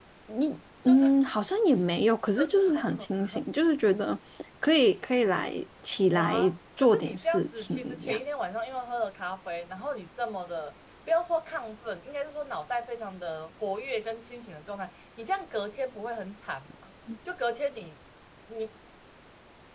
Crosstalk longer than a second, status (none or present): present